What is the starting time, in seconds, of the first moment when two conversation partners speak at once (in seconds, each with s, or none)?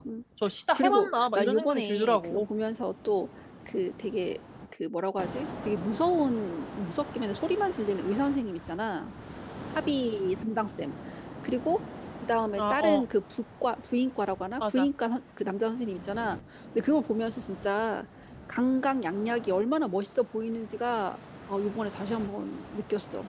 0.8 s